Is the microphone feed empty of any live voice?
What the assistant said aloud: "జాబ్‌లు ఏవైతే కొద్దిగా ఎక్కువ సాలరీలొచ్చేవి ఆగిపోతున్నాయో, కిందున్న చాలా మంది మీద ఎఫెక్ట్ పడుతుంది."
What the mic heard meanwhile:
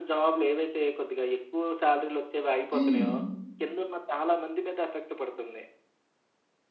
No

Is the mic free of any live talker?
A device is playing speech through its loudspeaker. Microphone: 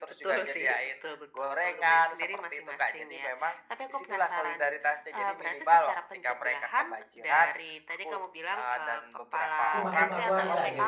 No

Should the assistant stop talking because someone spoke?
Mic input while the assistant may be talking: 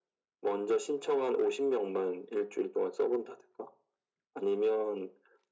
No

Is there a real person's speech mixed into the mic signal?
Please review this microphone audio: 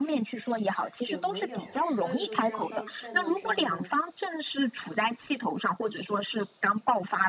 Yes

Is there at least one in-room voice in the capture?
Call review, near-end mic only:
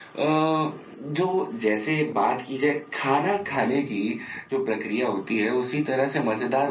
No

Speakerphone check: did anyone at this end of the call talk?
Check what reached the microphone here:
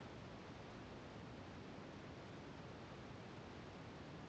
No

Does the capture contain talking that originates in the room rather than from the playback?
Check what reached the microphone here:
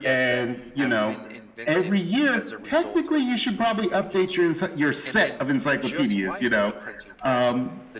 Yes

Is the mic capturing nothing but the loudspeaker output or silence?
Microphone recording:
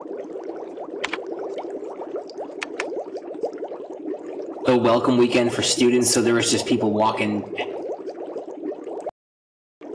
No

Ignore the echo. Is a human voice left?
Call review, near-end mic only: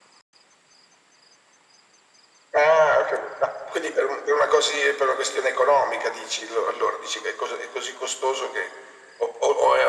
No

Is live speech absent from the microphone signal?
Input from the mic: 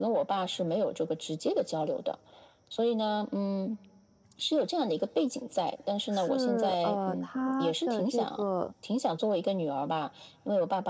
No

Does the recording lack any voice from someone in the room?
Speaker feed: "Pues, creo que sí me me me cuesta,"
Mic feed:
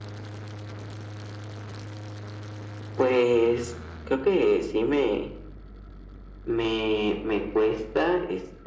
Yes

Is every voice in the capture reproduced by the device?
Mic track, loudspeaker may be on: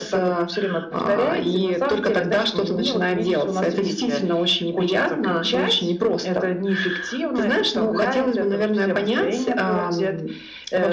Yes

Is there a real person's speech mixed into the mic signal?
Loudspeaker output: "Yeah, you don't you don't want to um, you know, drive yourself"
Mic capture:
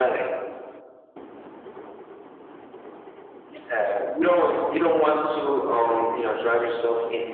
No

